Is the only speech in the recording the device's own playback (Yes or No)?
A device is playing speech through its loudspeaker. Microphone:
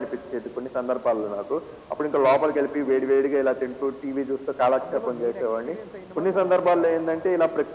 No